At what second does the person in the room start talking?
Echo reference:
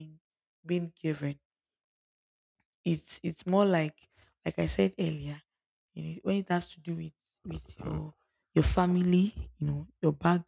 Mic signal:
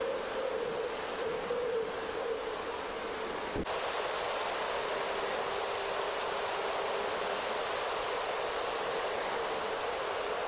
none

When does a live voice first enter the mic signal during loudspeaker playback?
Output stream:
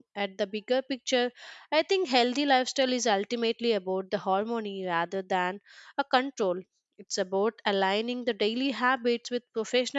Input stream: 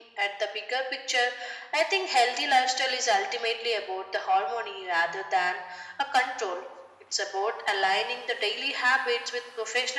none

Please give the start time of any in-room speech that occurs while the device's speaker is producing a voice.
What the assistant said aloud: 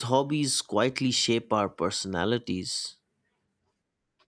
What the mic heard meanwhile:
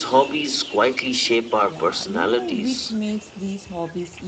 2 s

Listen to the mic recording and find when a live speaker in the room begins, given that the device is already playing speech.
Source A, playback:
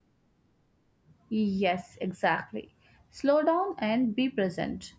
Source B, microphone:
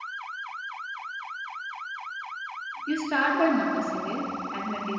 3 s

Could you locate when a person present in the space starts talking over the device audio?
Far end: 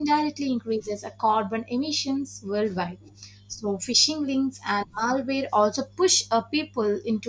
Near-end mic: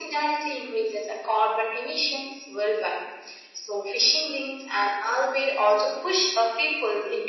none

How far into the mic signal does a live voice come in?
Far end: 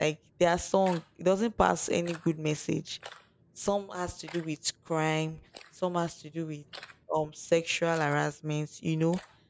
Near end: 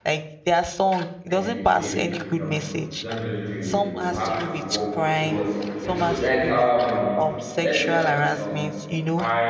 1 s

